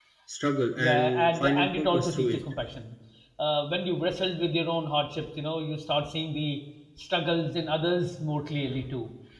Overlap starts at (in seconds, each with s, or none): 0.8 s